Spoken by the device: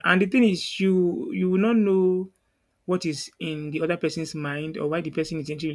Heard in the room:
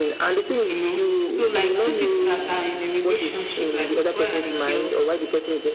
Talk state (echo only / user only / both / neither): both